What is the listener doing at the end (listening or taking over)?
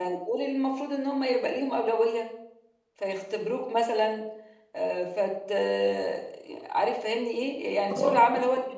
listening